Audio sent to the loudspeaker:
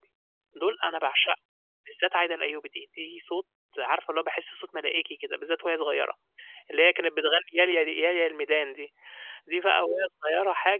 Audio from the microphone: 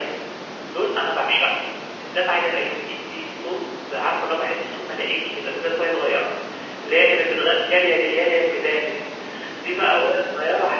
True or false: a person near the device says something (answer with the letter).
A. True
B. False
B